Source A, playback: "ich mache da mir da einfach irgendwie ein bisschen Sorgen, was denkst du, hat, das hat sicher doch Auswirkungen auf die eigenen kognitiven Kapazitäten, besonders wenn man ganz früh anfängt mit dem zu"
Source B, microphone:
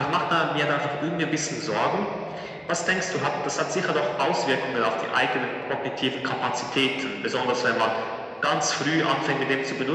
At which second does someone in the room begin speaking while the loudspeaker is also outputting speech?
none

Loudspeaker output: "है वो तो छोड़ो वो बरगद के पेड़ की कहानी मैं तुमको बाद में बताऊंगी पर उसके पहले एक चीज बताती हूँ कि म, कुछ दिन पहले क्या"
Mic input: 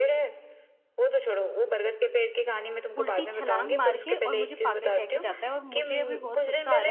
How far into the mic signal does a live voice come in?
3.0 s

